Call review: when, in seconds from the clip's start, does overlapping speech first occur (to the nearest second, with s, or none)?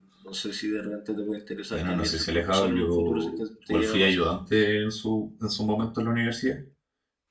2 s